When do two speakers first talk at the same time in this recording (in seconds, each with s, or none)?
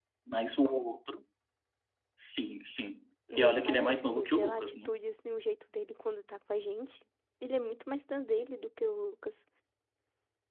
3.3 s